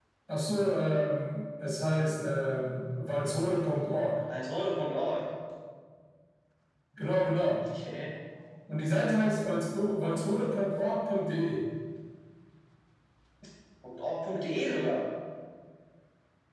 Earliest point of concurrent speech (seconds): none

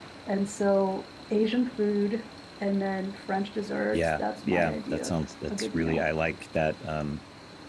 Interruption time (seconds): 3.9 s

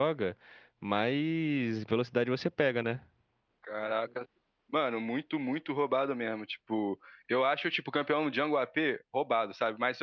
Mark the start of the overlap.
none

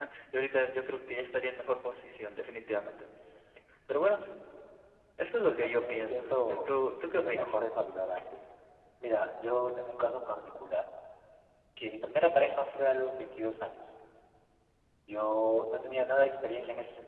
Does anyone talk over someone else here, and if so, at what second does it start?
5.5 s

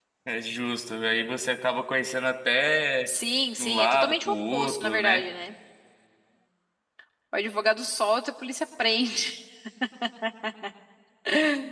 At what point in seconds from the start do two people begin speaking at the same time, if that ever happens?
3.6 s

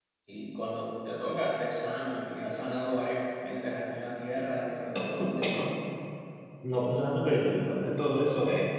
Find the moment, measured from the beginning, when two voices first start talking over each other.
none

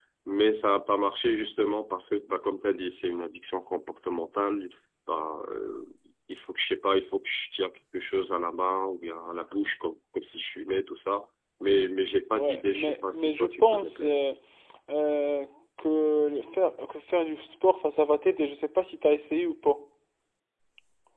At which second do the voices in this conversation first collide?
12.3 s

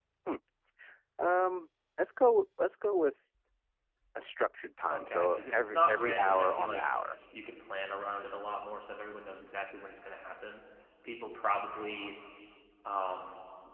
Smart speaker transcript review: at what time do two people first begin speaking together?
4.9 s

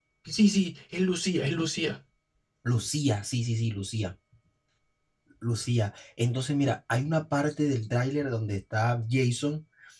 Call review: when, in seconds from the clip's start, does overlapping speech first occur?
none

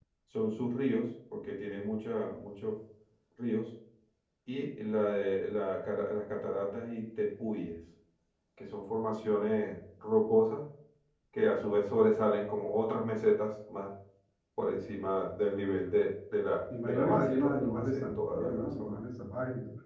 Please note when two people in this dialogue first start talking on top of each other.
16.7 s

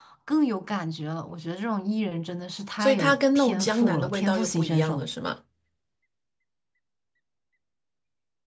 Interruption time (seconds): 2.8 s

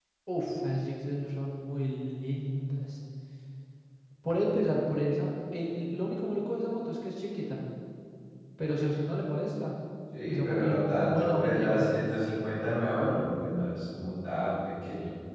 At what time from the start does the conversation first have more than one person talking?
10.3 s

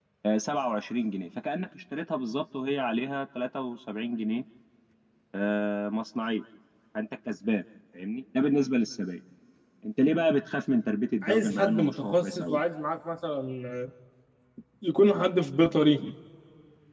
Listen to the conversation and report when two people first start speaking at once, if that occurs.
11.2 s

